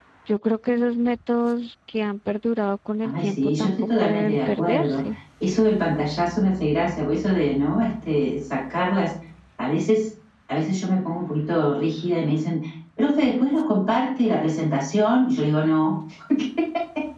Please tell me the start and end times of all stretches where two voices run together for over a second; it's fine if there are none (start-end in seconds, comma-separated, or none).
3.0-5.0